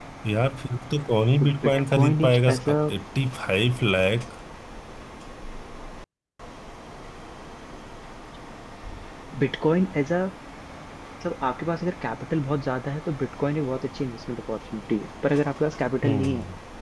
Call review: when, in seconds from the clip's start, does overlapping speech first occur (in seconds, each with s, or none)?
1.4 s